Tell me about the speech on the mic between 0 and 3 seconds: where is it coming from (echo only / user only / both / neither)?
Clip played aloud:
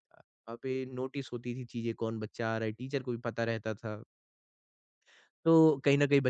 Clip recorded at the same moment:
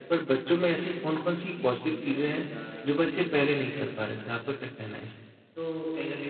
both